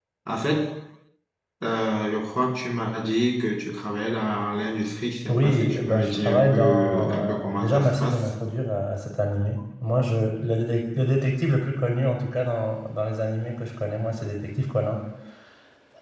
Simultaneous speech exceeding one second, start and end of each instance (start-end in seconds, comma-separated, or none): 5.3-8.3